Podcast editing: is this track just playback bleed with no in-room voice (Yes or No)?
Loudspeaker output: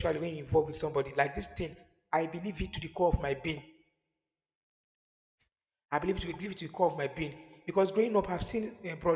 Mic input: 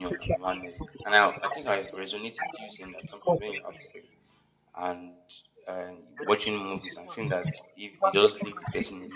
No